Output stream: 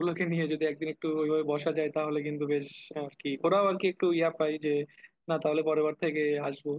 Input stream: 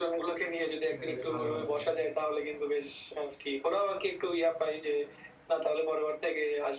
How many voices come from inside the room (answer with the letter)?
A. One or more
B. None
A